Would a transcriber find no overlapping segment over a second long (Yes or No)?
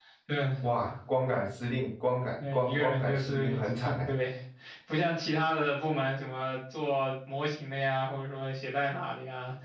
No